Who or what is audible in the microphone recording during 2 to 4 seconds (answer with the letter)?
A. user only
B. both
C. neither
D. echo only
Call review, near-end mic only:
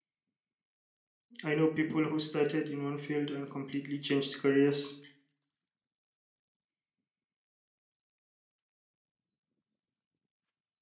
A